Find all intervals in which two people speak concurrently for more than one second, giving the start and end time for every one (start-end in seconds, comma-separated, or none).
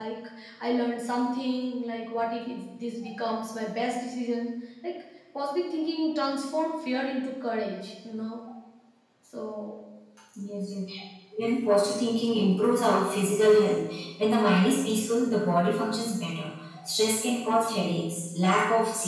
none